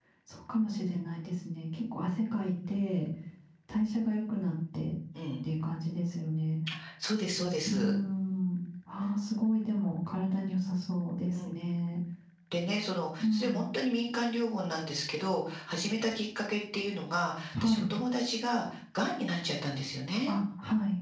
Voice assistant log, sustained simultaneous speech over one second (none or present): none